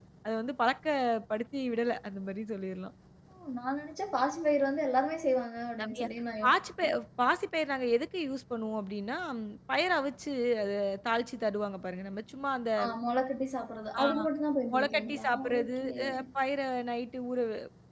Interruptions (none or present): present